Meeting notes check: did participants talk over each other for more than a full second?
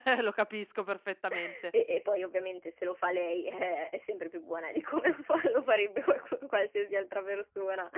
No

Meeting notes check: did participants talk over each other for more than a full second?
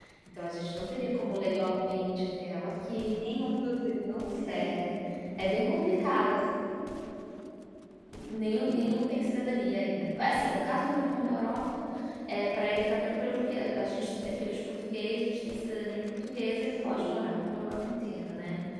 No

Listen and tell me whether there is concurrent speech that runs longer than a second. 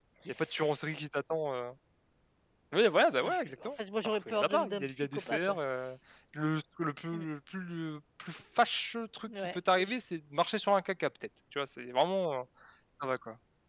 Yes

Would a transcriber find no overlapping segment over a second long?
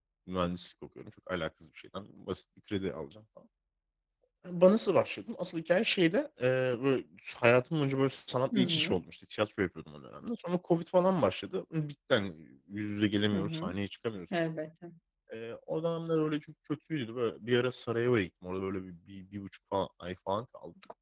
Yes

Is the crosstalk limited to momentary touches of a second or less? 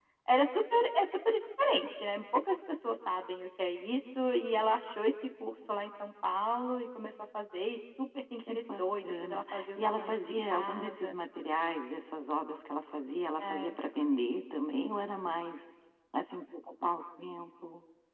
No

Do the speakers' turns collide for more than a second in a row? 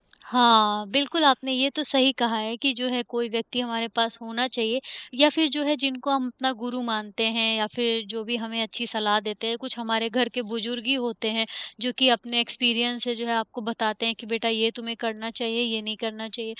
No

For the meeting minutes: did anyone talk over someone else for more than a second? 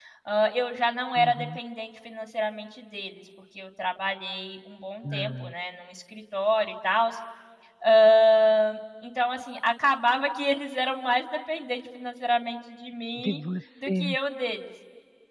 No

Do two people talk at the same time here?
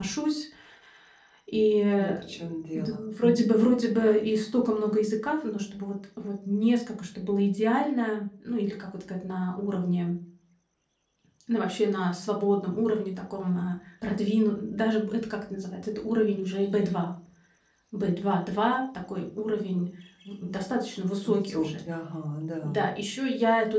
Yes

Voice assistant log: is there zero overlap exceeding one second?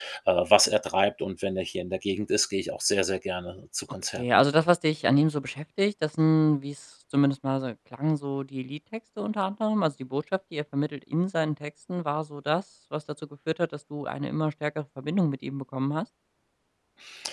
Yes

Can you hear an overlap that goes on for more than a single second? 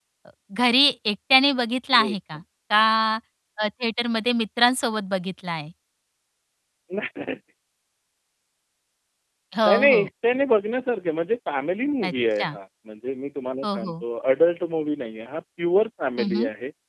No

